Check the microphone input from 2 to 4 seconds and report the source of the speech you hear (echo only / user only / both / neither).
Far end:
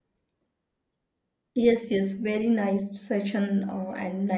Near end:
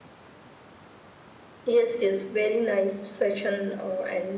echo only